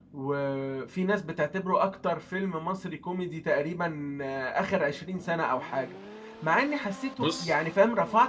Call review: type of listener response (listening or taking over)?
listening